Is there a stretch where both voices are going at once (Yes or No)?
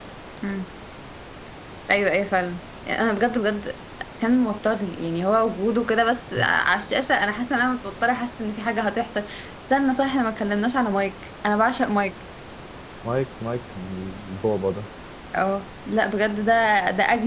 No